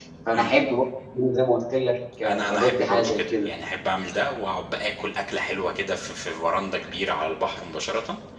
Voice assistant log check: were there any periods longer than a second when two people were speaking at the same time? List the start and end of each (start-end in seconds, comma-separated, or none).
2.3-3.5